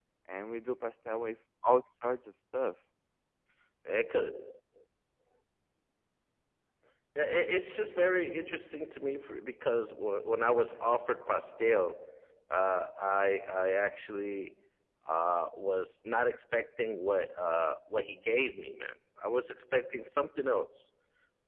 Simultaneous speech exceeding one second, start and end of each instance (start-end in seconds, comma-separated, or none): none